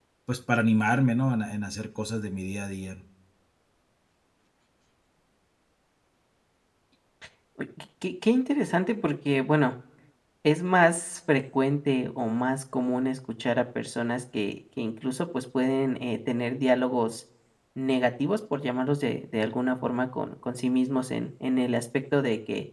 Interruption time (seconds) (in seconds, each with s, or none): none